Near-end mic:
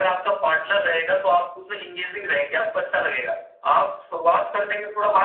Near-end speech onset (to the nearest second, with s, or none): none